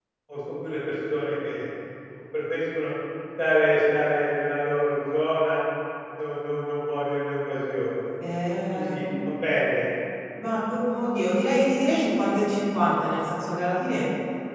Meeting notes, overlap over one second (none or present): none